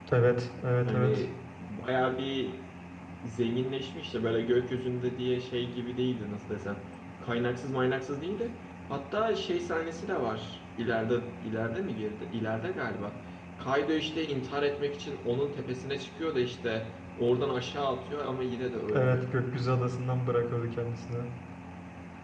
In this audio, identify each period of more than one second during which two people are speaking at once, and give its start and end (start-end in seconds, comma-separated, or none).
none